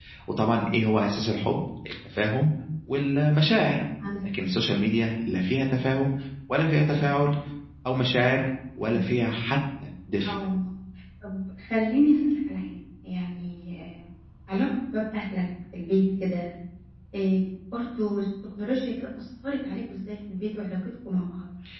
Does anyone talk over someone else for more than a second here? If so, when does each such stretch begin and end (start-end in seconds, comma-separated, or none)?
none